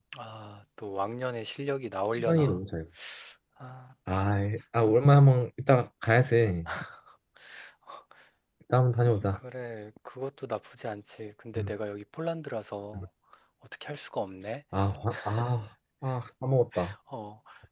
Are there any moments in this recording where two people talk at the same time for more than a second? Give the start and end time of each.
none

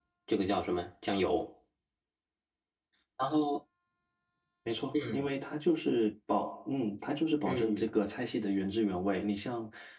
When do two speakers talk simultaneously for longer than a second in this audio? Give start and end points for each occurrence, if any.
none

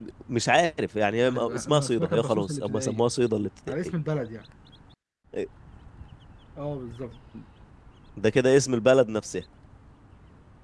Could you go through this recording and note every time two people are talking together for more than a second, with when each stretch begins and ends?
1.3-3.0

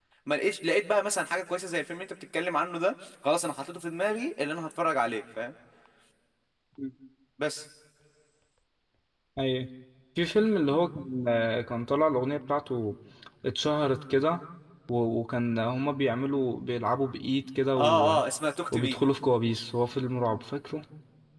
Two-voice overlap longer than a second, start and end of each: none

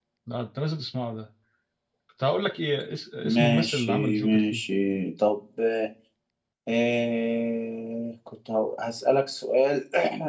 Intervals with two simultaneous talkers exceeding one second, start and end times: 3.2-4.6

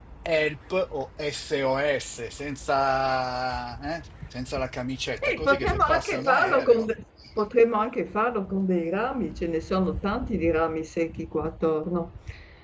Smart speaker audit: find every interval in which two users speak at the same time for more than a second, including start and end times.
5.2-6.9

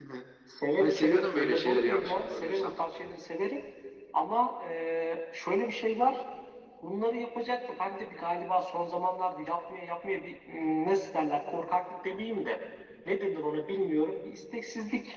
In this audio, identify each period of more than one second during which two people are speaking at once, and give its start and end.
0.8-2.7

